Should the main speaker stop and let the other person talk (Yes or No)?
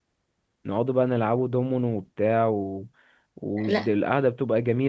No